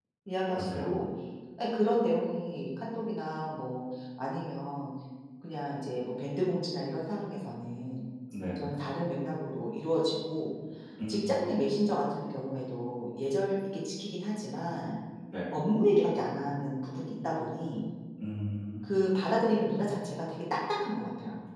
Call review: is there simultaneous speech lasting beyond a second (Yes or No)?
No